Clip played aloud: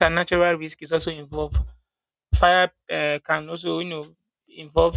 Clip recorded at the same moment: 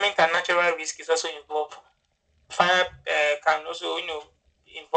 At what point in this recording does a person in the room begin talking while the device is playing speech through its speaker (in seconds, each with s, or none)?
none